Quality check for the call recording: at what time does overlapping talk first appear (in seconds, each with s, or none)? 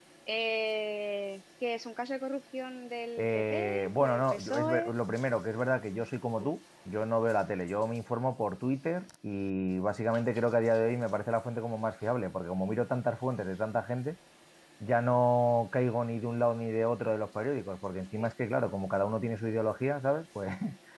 3.2 s